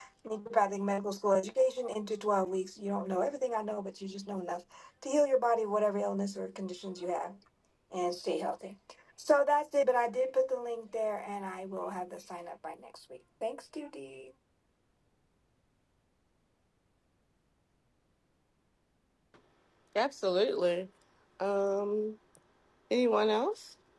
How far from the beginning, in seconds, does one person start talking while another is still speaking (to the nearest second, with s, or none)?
none